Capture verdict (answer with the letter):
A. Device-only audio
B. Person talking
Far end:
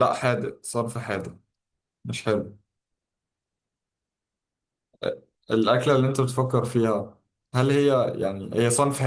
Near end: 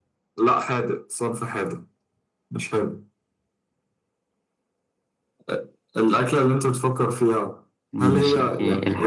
B